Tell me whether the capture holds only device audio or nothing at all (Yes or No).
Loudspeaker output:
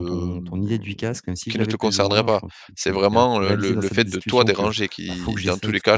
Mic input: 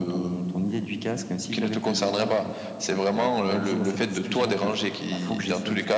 Yes